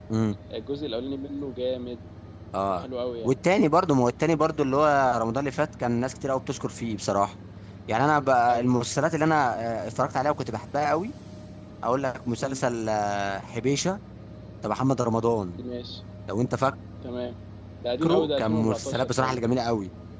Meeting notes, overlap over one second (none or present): present